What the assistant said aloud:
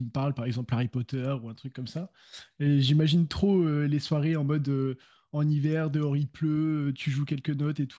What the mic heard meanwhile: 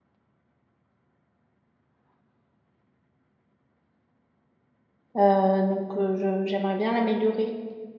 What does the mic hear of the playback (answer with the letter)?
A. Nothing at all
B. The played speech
A